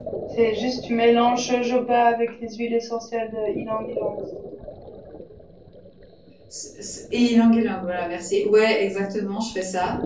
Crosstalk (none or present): none